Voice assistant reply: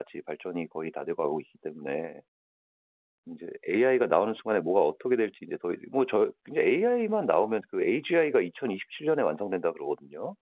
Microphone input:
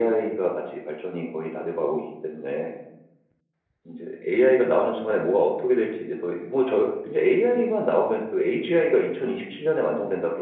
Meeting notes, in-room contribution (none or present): none